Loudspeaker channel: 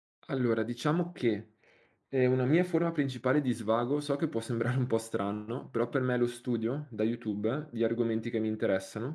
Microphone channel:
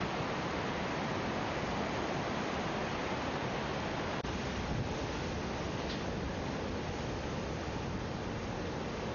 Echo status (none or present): none